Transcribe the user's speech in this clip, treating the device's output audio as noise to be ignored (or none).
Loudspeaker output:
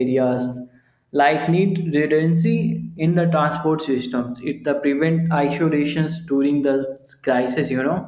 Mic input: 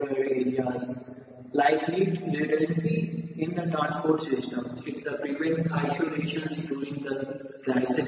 none